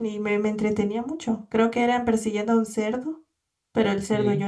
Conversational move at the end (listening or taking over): listening